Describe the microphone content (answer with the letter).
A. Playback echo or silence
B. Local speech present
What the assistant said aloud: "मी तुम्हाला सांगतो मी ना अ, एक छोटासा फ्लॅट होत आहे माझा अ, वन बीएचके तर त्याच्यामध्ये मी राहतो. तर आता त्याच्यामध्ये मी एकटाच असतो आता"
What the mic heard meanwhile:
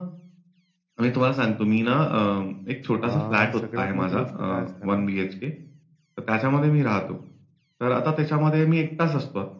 B